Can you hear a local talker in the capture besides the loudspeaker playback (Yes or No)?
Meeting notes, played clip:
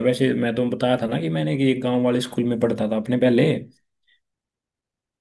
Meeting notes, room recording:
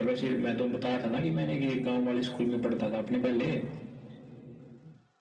No